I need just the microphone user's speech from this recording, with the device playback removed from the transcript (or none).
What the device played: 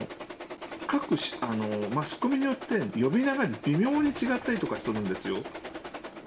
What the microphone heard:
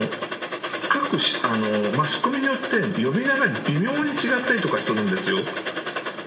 none